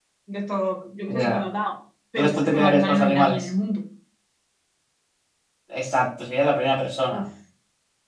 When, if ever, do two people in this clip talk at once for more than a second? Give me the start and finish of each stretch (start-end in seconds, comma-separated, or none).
2.2-3.4